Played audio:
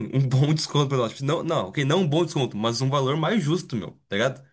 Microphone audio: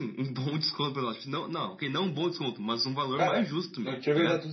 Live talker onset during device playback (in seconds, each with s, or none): 3.1 s